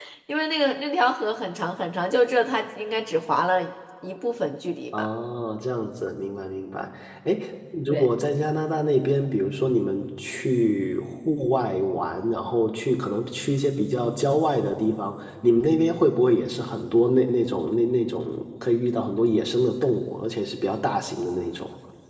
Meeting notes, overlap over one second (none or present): none